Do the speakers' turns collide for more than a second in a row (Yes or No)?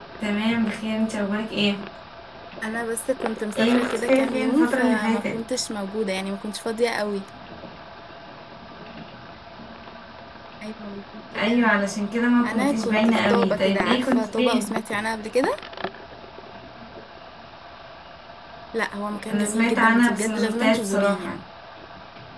Yes